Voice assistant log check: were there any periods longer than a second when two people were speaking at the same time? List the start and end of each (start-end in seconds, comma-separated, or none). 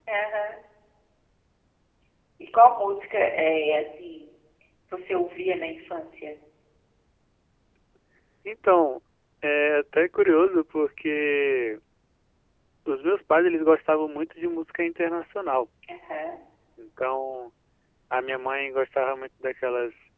none